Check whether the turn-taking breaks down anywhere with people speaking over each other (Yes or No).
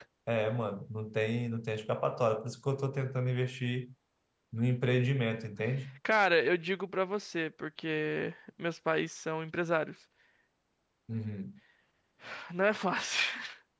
No